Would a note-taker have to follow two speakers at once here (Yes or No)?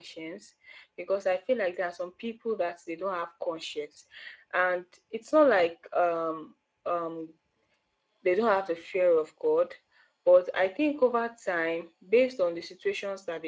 No